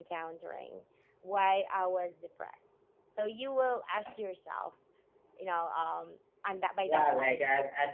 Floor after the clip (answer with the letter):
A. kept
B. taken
B